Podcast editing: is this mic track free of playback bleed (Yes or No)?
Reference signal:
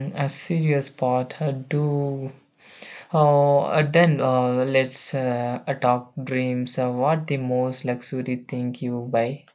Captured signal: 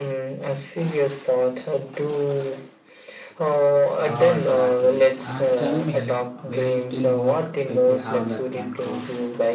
No